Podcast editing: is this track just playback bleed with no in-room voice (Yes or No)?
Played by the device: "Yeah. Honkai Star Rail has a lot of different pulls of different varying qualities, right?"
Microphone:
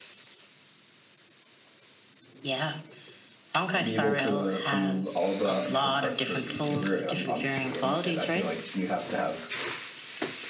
No